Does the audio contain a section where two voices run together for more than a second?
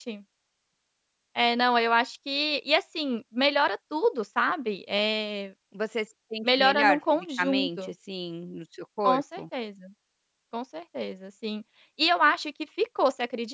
Yes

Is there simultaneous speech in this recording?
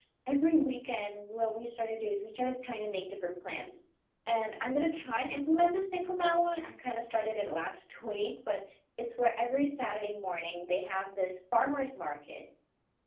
No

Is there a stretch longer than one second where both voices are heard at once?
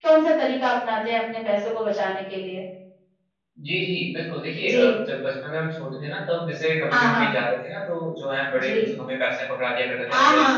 No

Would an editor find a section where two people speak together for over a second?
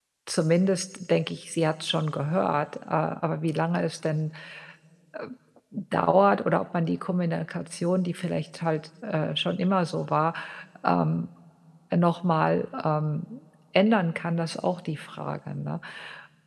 No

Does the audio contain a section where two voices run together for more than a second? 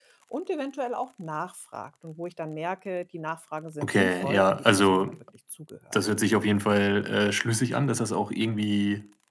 Yes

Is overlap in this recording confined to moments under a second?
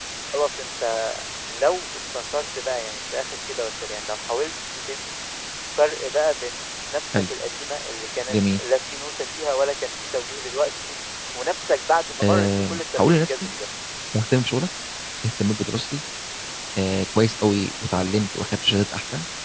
No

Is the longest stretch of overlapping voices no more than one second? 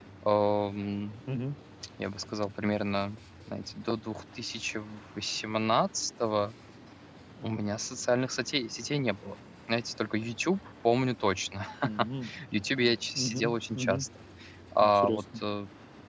No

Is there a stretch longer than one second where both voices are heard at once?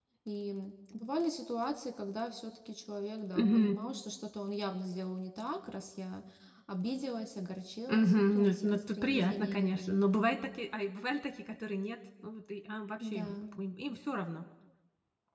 Yes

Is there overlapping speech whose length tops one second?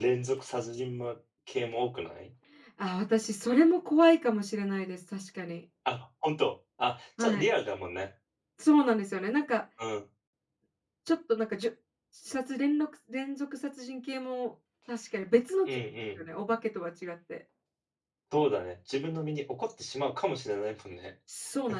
No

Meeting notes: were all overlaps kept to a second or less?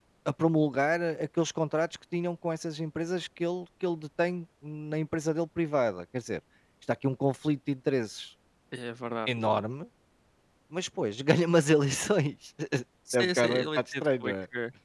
No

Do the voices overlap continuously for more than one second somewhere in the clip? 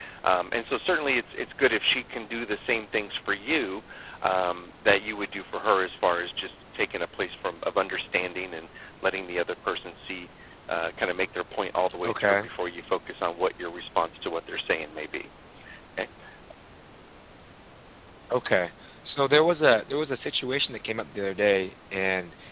No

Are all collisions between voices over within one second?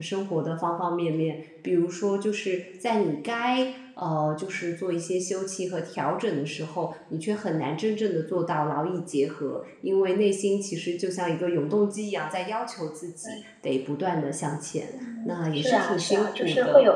No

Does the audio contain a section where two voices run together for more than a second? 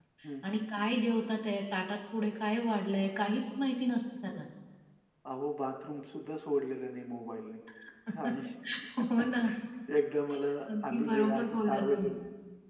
Yes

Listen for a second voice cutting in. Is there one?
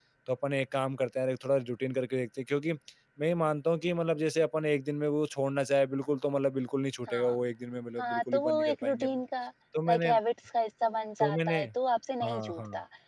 Yes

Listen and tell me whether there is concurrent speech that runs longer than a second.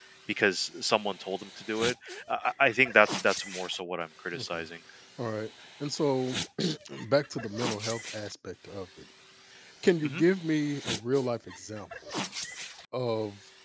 No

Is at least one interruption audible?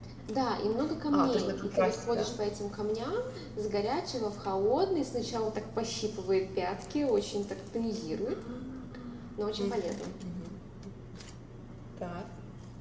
Yes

